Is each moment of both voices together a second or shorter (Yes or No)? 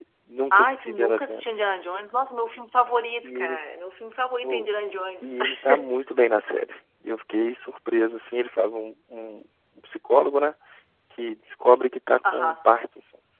No